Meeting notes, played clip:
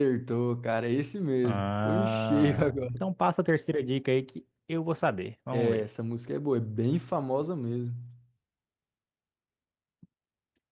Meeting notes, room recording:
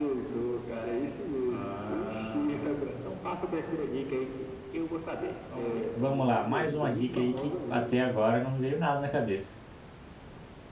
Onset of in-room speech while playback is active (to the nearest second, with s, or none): 6 s